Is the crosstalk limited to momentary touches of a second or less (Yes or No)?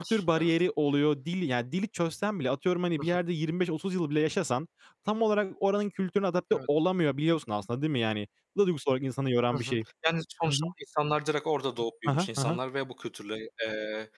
Yes